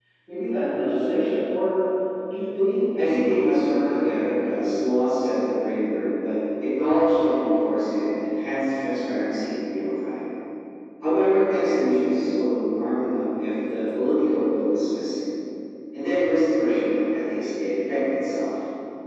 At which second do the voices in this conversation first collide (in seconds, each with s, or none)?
3.0 s